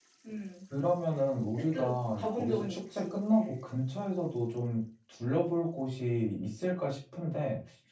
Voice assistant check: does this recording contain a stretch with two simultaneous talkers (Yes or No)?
Yes